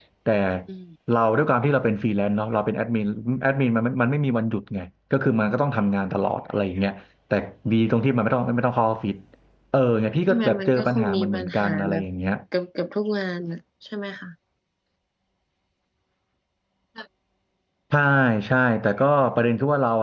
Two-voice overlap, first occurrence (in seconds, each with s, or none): 10.3 s